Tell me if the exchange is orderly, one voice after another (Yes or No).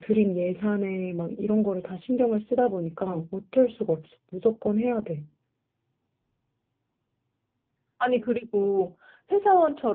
Yes